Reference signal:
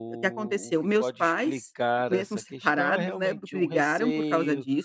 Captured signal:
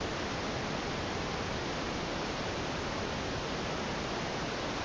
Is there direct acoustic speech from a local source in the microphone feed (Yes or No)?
No